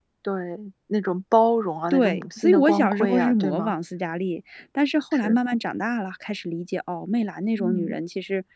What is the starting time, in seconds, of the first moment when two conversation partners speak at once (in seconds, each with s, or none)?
1.9 s